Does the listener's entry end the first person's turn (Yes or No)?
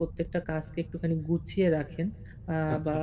No